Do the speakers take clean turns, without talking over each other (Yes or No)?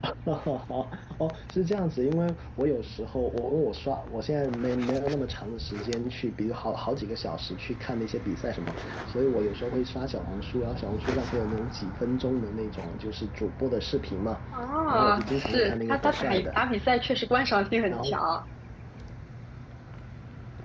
No